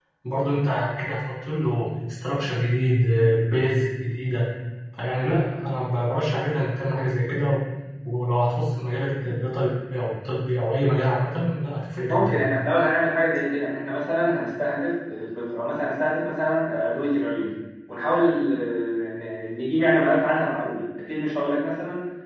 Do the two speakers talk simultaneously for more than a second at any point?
No

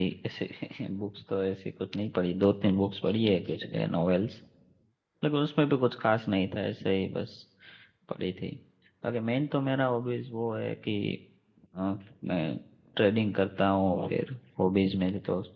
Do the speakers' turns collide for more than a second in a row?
No

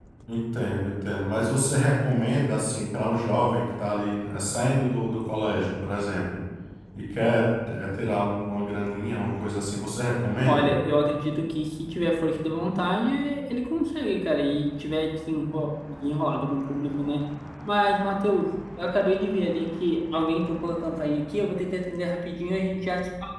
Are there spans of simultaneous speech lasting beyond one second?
No

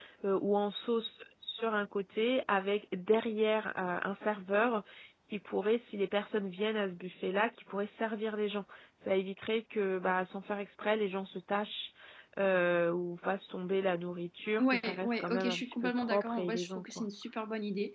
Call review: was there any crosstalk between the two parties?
Yes, from 14.6 s

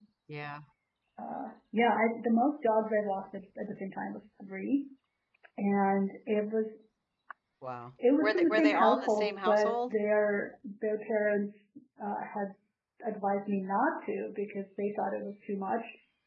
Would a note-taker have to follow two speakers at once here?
Yes, from 8.2 s

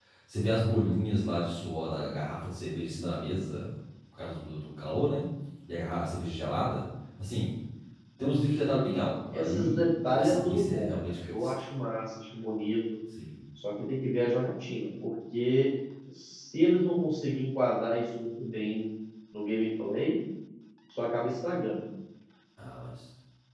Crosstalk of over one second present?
Yes, from 9.3 s

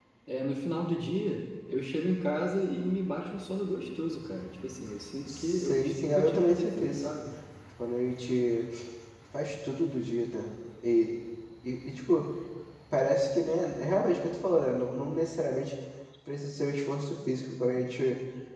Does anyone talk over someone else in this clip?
Yes, from 5.3 s

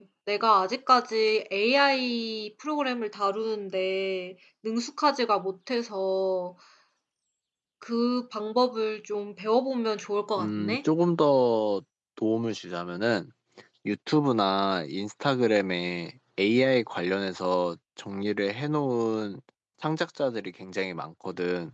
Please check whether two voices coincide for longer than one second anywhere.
No

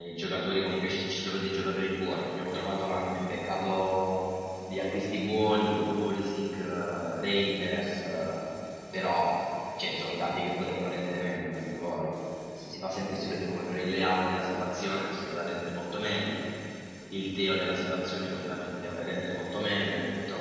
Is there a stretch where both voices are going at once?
No

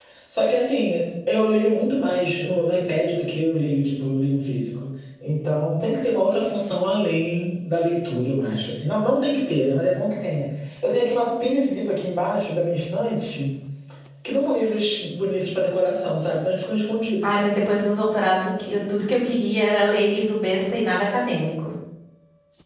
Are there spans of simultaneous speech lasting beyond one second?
No

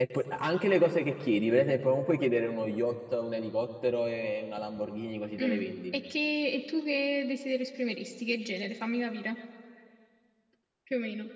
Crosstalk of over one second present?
No

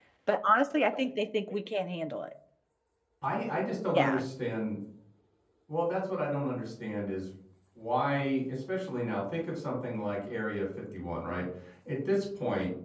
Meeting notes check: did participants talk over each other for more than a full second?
No

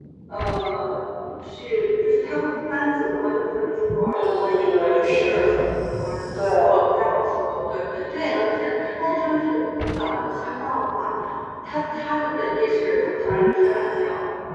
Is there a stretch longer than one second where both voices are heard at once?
Yes, from 4.1 s

